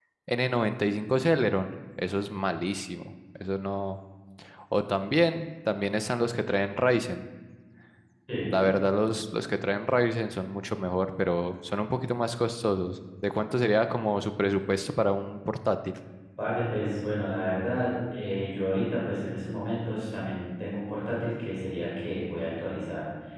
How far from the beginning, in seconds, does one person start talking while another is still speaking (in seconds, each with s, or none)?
none